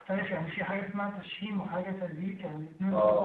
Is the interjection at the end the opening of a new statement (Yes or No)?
Yes